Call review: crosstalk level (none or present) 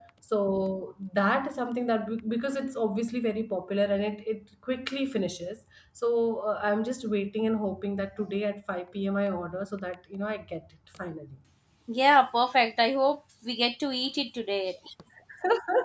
none